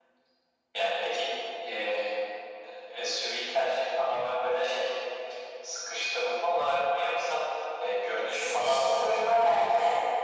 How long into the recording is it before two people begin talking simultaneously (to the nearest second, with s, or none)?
8 s